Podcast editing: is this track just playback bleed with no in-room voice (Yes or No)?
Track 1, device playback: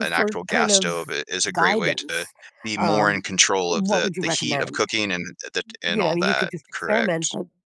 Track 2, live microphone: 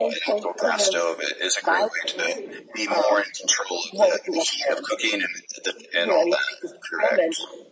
No